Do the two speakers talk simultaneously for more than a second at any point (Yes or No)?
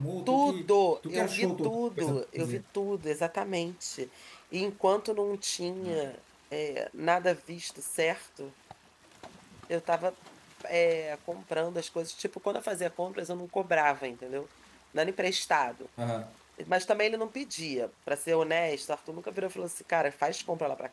Yes